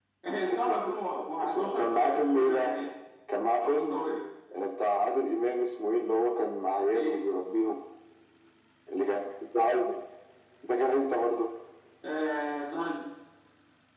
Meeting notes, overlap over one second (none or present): present